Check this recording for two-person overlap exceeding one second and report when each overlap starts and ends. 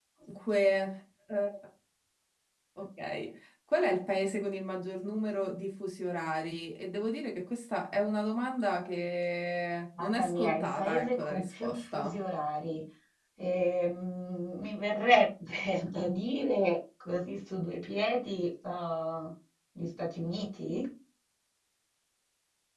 10.0-12.2

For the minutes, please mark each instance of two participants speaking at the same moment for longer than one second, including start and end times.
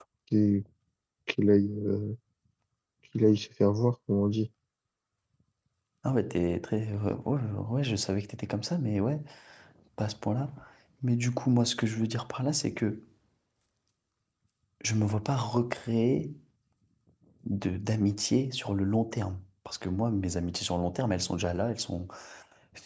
none

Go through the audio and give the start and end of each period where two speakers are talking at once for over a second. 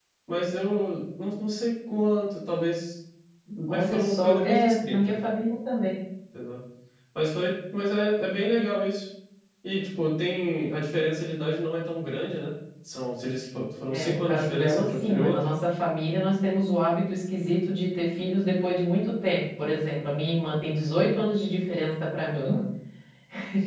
3.7-5.2, 13.9-15.4

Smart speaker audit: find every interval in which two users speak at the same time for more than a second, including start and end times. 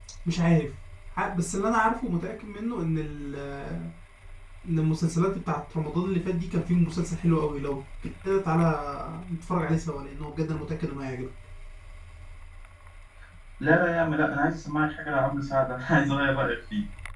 none

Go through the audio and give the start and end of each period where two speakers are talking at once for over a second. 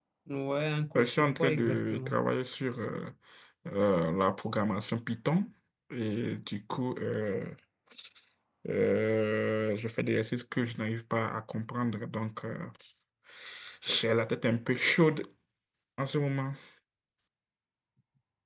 1.0-2.2

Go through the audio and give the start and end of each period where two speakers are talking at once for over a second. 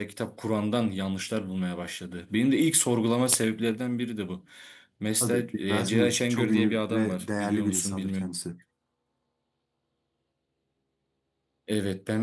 5.2-8.4

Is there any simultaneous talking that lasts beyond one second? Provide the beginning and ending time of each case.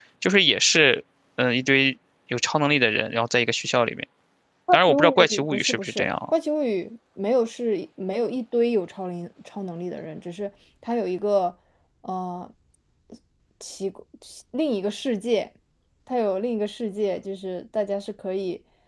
4.9-6.3

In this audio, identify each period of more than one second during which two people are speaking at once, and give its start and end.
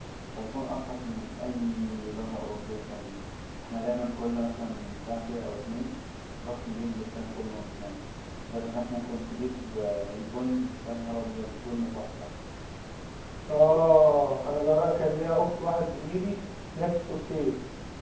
none

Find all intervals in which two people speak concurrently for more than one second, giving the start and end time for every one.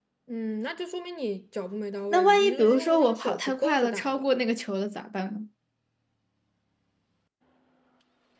2.1-4.2

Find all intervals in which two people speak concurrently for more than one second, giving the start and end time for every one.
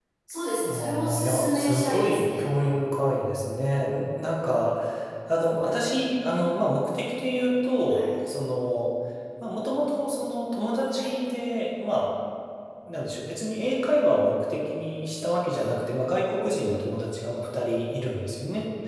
0.6-2.5

